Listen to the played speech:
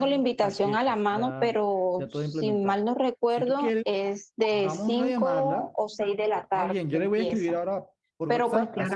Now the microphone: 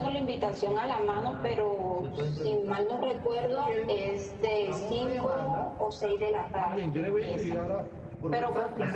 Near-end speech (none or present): none